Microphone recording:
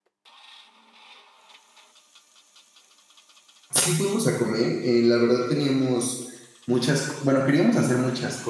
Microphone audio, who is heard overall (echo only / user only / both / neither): user only